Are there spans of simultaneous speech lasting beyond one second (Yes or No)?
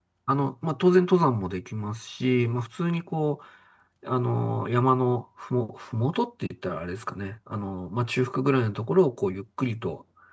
No